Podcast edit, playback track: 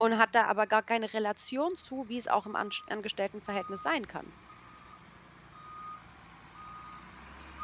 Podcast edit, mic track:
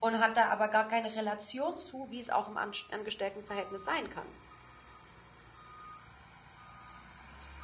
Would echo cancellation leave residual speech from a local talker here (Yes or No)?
No